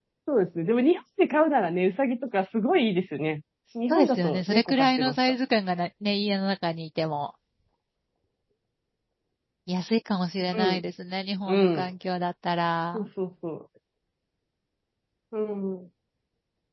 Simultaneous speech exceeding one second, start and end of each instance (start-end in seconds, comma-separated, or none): 3.9-5.2